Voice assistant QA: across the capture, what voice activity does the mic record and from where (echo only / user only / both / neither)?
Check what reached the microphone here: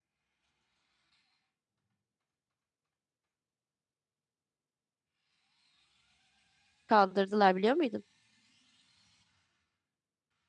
user only